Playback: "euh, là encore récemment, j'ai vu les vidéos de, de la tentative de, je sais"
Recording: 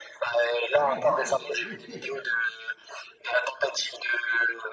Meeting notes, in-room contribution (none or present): present